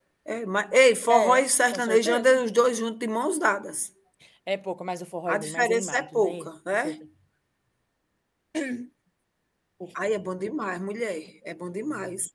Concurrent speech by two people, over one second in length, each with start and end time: 1.1-2.3, 5.3-7.0

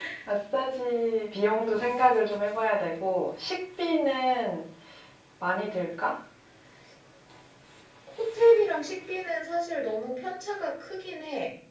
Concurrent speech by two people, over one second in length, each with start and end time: none

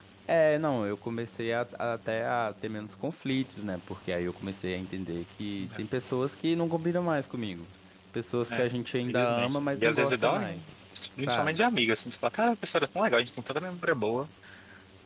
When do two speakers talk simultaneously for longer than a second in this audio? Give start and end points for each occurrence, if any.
9.1-10.5

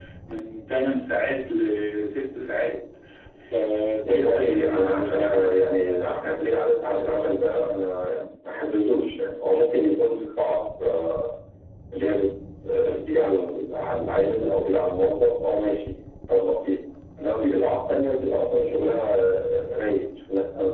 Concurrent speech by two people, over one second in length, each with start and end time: 4.1-5.6

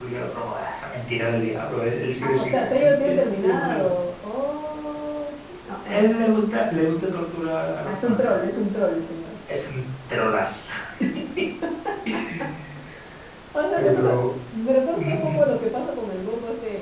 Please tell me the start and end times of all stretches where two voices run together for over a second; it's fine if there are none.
2.2-3.9

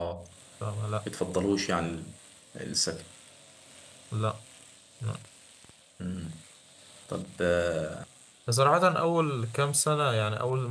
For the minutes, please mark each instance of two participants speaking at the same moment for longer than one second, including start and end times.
none

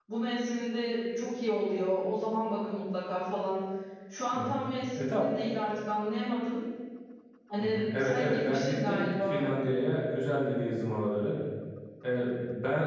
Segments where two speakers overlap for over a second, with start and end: 7.6-9.4

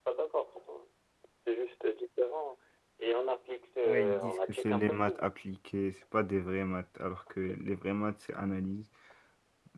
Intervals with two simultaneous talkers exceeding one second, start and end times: 3.8-5.3

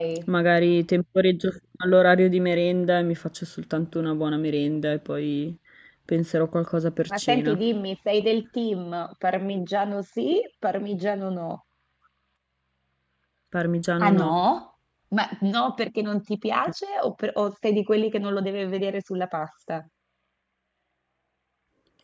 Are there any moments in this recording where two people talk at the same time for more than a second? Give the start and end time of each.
none

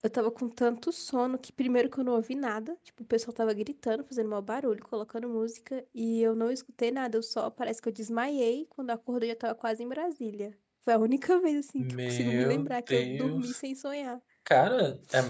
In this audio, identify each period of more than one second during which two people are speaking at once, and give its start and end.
11.8-13.6

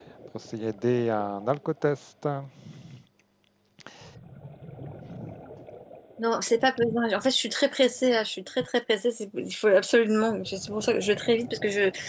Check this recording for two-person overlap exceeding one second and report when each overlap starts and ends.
none

